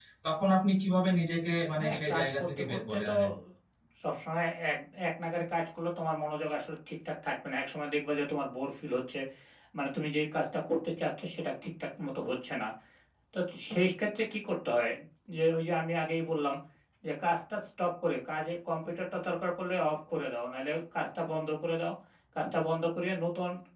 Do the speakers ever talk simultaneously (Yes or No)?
Yes